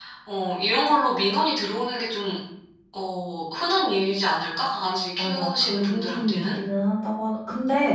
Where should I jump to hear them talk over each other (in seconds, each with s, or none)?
5.2 s